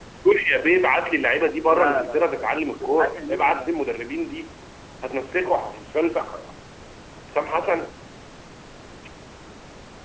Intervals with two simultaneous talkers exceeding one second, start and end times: 1.7-3.7

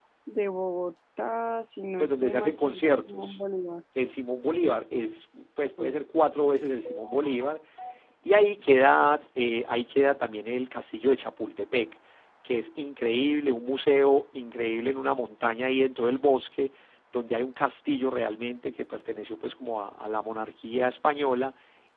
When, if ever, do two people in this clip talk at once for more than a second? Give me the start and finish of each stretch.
2.0-3.4

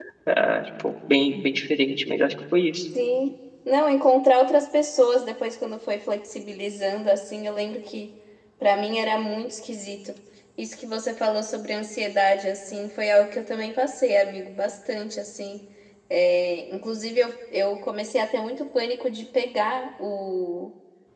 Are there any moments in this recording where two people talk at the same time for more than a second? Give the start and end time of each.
none

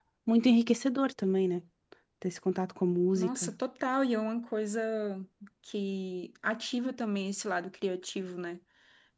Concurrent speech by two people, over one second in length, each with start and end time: none

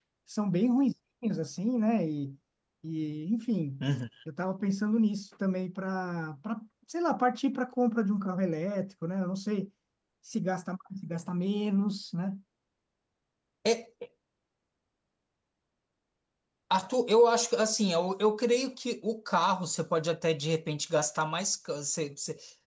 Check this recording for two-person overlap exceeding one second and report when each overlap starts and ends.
none

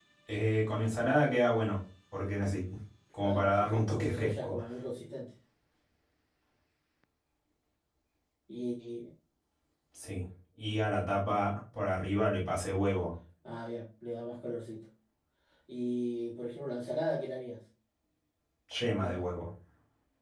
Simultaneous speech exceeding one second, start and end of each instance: 3.2-4.5

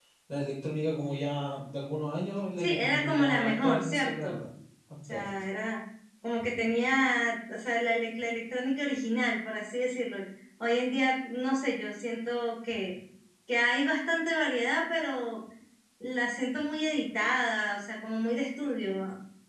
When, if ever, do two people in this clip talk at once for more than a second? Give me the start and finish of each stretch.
2.6-4.4

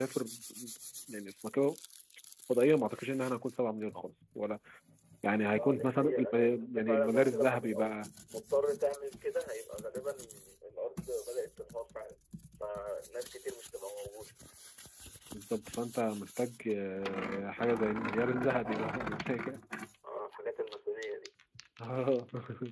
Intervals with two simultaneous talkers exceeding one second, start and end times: 5.6-8.0

